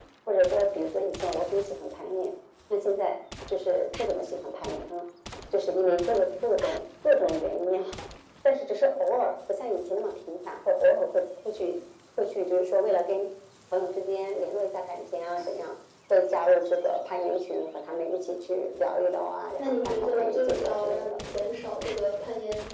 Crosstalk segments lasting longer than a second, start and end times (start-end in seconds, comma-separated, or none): 19.6-21.2